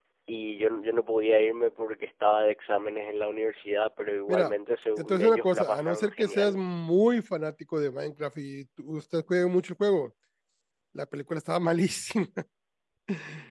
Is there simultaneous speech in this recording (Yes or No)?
Yes